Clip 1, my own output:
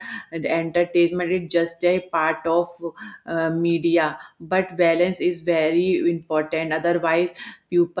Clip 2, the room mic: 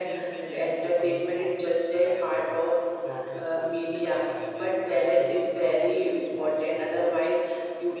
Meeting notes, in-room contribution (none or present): present